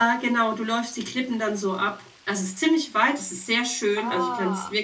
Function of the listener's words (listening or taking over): listening